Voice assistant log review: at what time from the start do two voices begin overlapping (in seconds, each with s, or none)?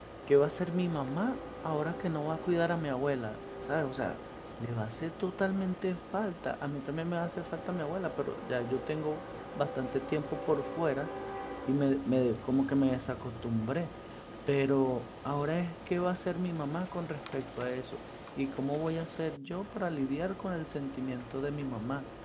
none